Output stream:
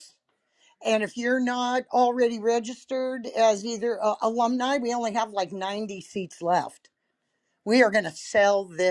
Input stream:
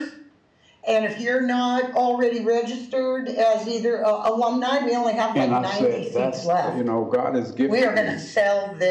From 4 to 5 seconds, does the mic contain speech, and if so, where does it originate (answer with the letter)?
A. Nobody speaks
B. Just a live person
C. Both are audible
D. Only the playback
D